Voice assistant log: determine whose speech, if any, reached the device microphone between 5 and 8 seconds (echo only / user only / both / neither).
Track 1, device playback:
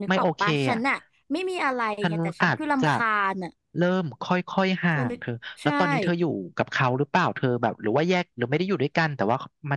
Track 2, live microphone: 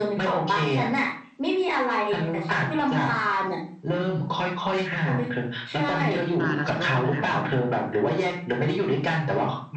both